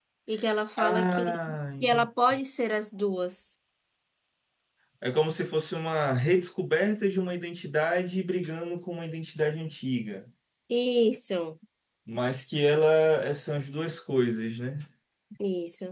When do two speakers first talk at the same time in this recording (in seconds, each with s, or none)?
0.8 s